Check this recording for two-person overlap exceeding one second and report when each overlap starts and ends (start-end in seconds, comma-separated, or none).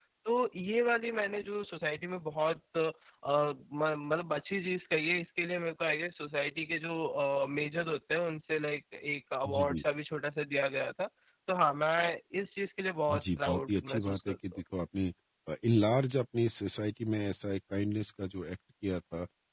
13.1-14.6